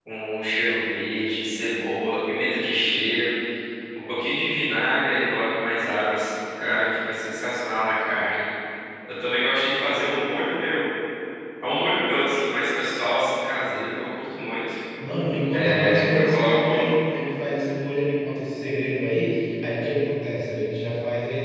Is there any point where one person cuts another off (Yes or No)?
Yes